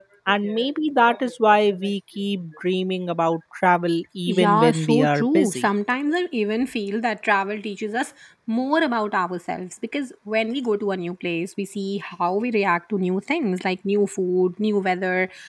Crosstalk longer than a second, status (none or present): present